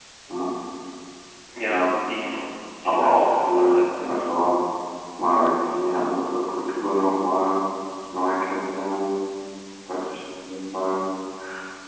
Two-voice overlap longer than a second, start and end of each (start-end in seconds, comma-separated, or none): 2.9-4.2